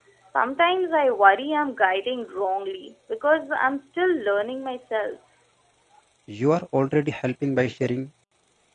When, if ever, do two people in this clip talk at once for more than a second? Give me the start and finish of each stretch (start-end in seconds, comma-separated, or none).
none